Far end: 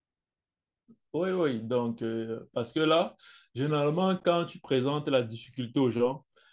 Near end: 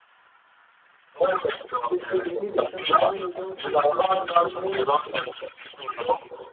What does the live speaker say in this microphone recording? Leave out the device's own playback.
de fédérer des gens, d'avoir des gens autour de moi ou autre, mais

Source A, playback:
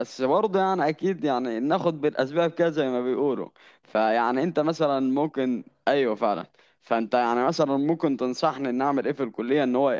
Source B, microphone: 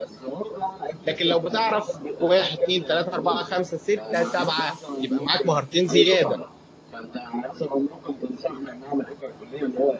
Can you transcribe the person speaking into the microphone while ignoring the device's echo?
لكن لو بتعرف واحد اتنين تلاته اربعه خمسه سته سبعه يبقى معاك مهارتين زياده

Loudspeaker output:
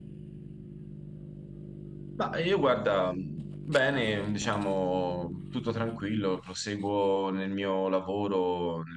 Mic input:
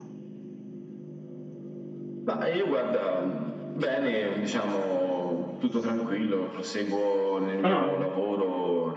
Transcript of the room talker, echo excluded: Ah.

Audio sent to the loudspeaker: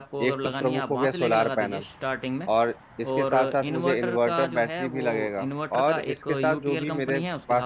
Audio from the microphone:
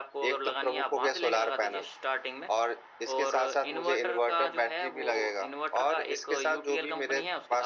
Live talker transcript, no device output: none

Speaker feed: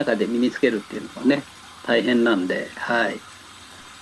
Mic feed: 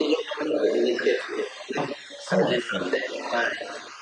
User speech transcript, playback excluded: あ、そうなんですね。

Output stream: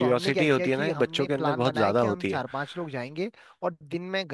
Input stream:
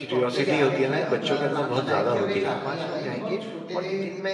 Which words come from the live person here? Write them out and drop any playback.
जैसे आपने बताया ना बुरास की जो साला तो मेरे को एक कहानी याद आई जब हम छोटे थे

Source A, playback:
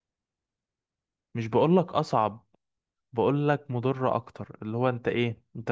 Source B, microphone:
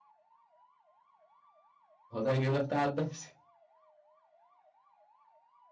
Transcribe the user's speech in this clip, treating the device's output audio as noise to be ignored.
هو ده هيجيب لك تعب نفسي

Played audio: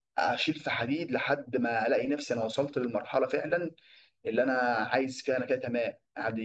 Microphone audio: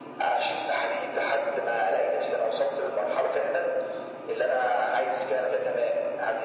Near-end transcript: none

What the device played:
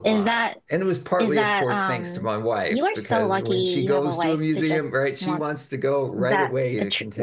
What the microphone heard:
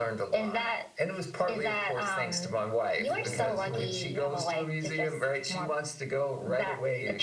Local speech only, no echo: really? Okay.

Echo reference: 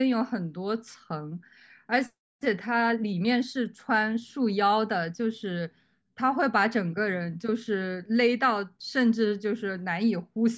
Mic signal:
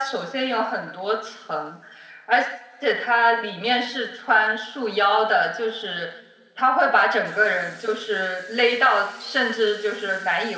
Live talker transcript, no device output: none

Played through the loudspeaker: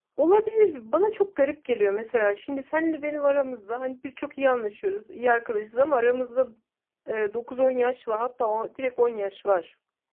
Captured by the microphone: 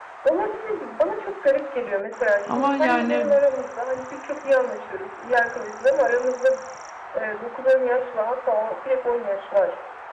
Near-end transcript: Ama yani

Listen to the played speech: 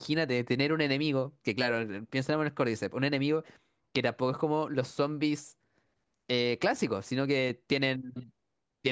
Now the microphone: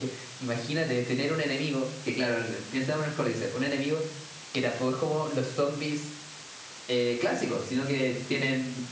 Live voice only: none

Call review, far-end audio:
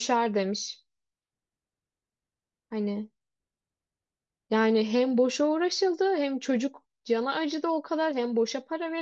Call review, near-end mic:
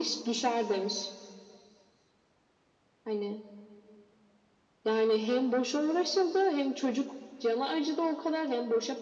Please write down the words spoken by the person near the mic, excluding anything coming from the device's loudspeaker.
none

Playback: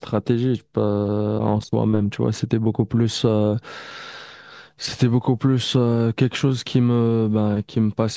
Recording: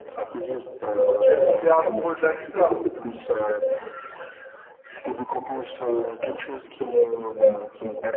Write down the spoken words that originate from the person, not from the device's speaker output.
Donc tu es tombé amoureux de la guitare.

